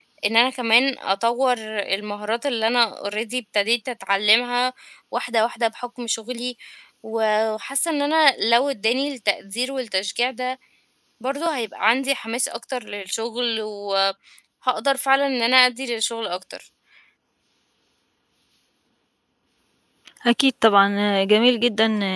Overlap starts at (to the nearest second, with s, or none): none